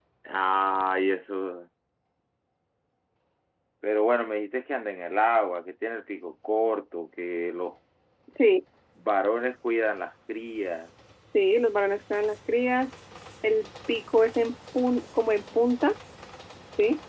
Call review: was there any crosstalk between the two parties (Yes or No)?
No